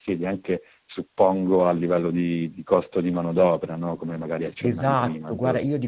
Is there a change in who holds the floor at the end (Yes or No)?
Yes